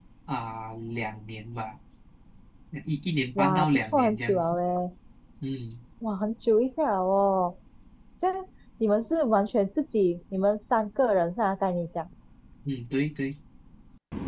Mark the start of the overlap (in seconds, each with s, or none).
3.4 s